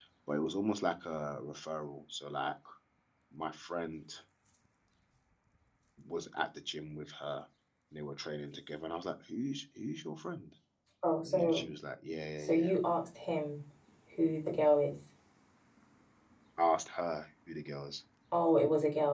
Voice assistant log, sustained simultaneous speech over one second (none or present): none